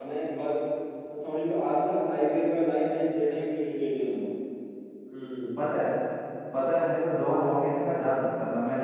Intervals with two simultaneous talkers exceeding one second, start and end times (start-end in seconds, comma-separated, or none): none